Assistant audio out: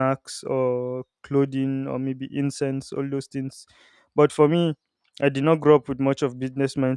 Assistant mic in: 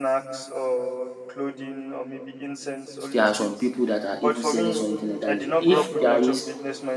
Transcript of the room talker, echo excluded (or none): there are some people that are even selling something entirely. If there is,